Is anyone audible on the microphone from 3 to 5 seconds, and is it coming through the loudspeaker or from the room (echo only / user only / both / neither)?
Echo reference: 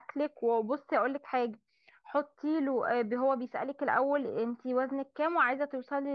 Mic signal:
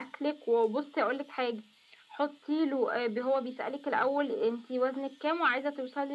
echo only